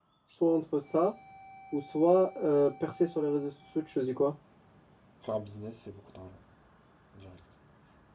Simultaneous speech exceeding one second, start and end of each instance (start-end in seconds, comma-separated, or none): none